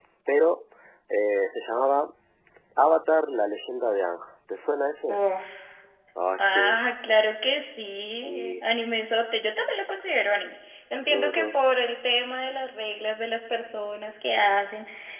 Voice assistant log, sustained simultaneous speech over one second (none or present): none